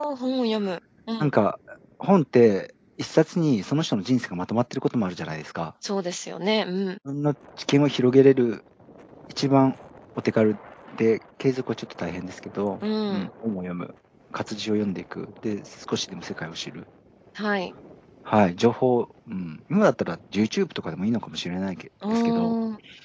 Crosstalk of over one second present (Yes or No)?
No